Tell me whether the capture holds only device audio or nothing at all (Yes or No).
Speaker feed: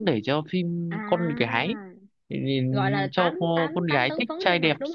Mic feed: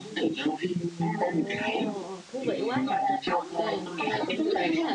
No